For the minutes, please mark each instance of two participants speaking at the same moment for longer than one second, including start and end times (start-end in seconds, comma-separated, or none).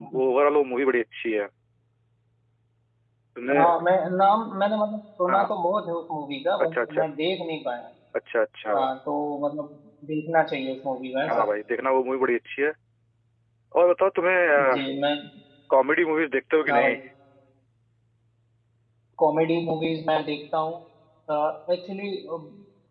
none